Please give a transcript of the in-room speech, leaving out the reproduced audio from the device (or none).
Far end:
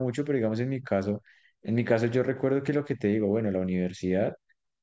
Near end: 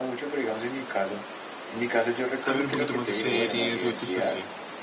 a ver un poquito más de series, es así.